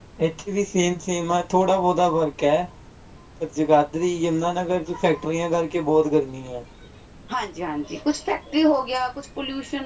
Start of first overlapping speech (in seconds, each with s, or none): none